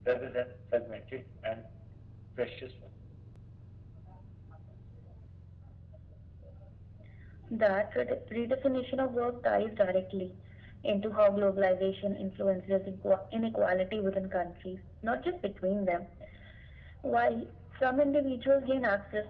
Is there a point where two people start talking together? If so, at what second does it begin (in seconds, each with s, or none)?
none